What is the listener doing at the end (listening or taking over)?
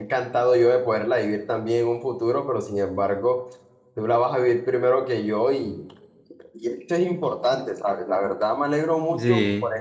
listening